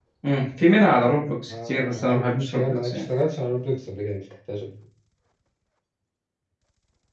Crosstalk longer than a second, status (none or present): present